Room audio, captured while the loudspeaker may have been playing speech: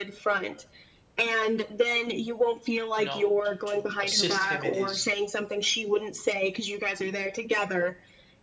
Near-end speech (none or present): present